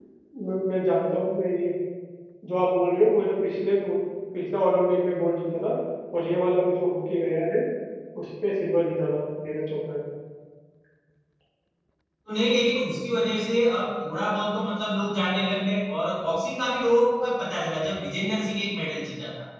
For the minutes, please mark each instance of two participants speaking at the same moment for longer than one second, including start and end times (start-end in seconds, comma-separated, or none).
none